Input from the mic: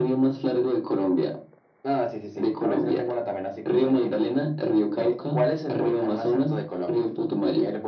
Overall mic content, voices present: echo only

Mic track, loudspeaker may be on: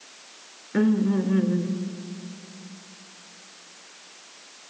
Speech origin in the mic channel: user only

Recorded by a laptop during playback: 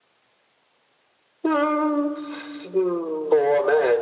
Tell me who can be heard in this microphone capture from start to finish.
echo only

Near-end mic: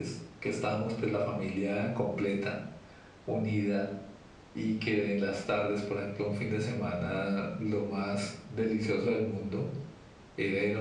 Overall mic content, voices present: echo only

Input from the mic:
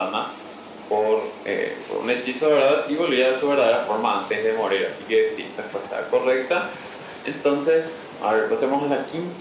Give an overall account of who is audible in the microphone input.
echo only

